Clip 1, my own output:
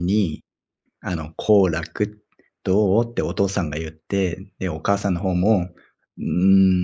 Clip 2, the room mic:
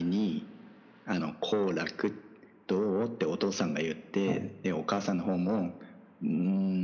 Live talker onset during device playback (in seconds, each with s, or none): 4.2 s